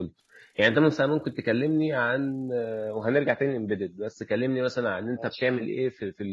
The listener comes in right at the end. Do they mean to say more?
No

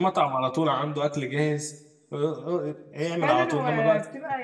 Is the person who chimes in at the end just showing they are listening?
No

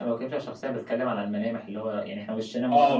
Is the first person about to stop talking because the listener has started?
Yes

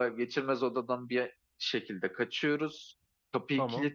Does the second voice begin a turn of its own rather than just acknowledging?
No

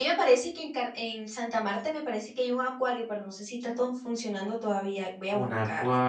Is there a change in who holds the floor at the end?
Yes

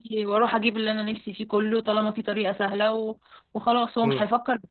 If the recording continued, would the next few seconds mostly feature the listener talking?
Yes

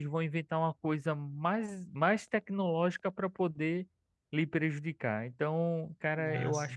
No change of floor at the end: Yes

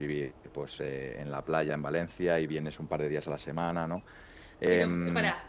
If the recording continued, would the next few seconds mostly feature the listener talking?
Yes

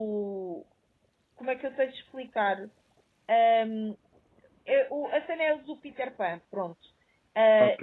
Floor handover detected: No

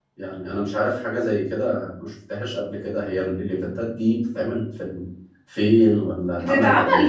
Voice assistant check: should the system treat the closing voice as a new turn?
Yes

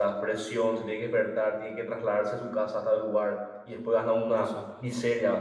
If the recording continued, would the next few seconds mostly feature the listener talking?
No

